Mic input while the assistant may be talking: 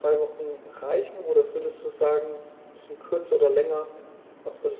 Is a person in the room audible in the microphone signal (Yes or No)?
No